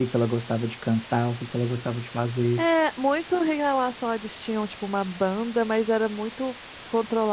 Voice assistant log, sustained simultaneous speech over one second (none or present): none